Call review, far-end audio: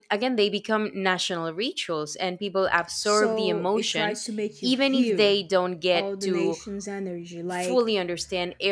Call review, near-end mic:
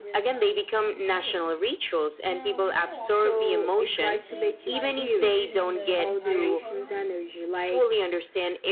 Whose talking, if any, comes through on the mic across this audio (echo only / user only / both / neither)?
both